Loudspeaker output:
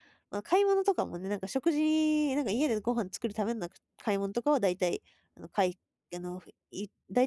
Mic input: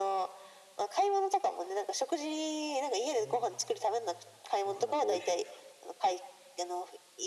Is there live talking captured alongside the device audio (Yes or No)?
Yes